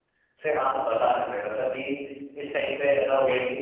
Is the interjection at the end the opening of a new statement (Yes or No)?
No